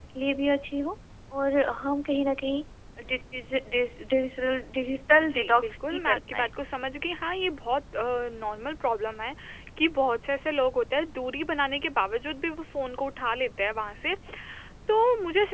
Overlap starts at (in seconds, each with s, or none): 5.2 s